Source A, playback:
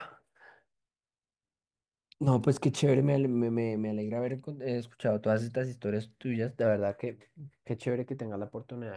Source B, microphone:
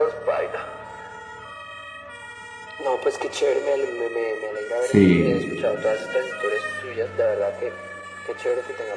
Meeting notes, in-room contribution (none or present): present